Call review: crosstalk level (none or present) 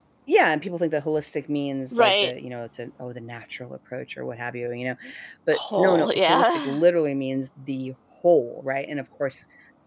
present